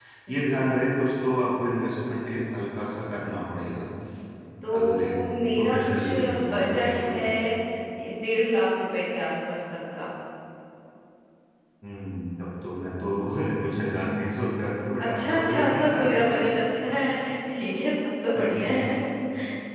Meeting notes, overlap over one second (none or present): present